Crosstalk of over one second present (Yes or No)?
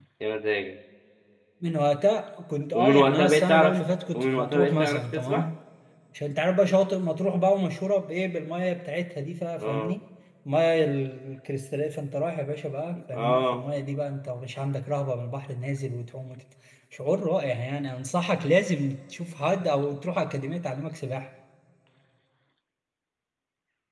Yes